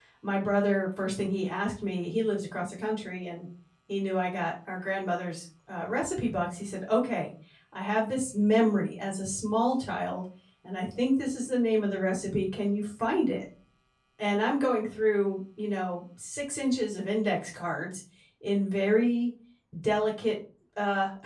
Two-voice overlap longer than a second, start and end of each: none

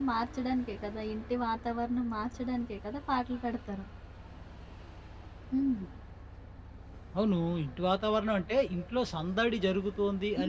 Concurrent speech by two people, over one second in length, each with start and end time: none

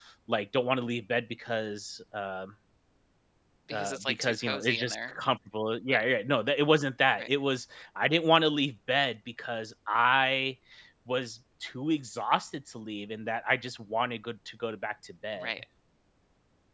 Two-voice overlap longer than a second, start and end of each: 3.7-5.1

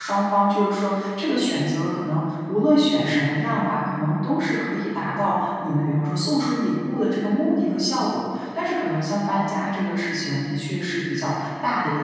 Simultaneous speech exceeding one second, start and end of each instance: none

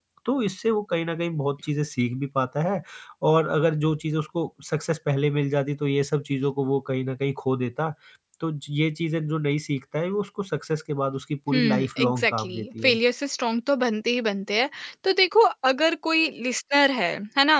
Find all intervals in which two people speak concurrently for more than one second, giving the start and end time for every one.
11.5-13.0

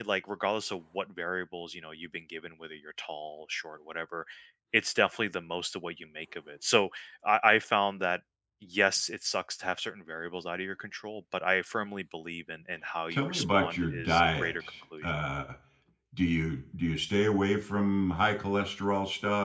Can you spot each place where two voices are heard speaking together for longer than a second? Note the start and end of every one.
13.1-14.5

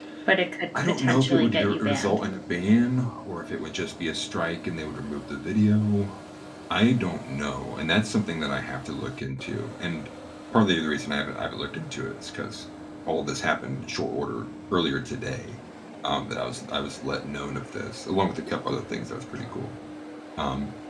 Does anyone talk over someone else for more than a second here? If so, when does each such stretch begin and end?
0.8-2.2

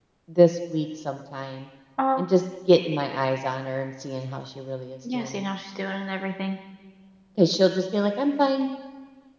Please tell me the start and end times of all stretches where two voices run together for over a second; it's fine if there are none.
none

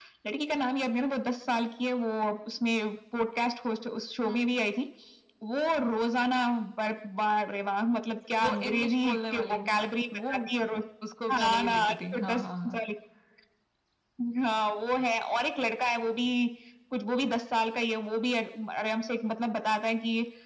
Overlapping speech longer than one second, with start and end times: 8.4-10.5, 11.3-12.8

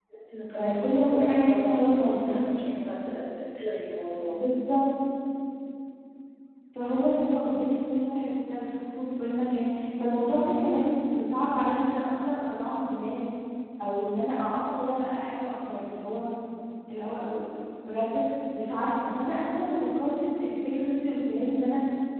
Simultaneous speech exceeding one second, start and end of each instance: 0.6-2.4

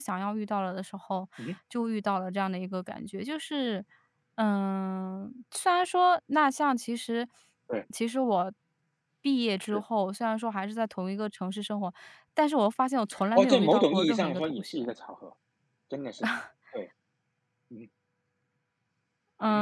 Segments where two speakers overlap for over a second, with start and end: 13.3-14.9

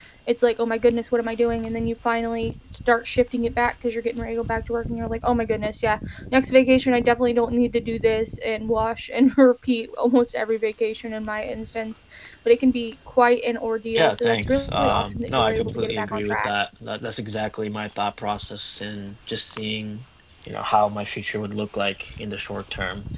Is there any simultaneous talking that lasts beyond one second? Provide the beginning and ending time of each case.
13.9-16.5

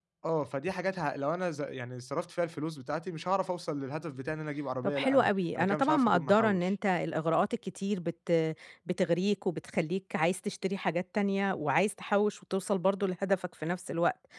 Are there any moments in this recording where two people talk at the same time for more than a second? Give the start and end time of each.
4.8-6.7

